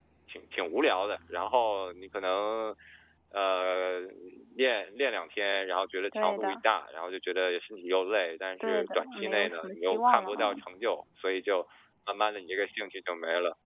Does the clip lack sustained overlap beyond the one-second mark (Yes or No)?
No